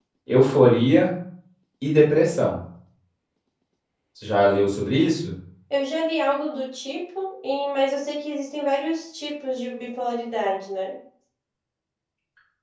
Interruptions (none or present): none